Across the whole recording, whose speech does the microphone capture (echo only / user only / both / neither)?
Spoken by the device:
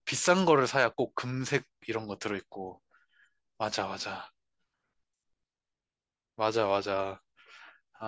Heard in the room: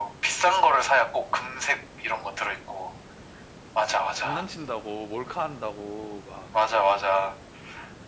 both